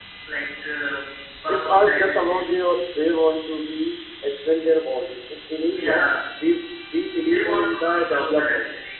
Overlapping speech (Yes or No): Yes